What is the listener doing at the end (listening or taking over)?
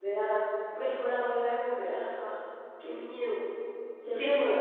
taking over